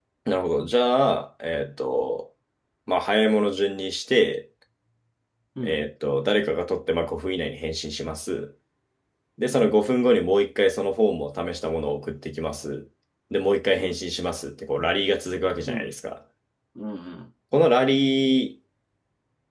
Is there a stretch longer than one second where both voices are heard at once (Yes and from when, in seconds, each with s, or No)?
No